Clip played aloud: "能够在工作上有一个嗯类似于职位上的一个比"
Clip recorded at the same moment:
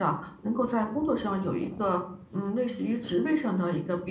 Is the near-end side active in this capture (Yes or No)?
No